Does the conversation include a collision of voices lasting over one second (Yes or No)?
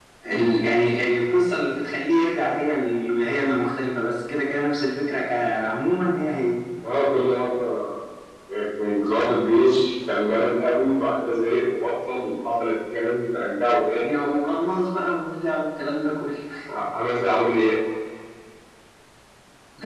No